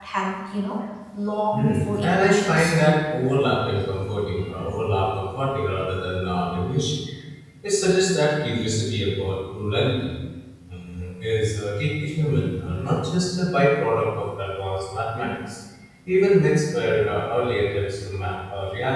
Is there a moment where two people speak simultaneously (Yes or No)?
Yes